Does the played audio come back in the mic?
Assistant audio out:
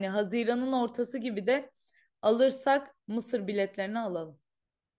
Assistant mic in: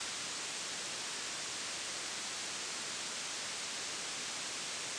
No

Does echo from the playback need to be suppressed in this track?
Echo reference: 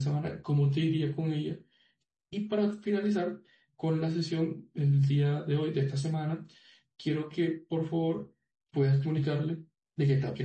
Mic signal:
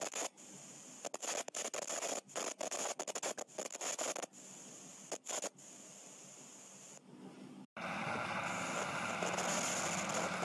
No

